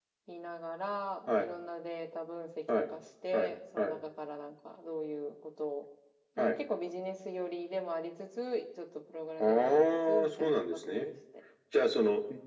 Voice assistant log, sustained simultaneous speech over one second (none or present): present